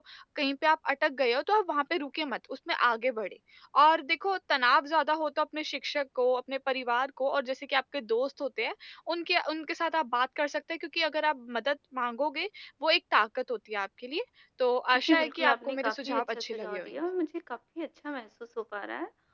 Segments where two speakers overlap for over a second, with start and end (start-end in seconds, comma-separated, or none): 15.1-17.0